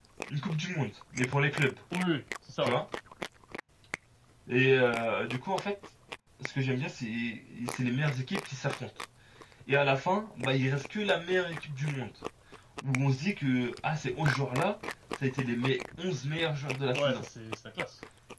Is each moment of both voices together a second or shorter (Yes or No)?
Yes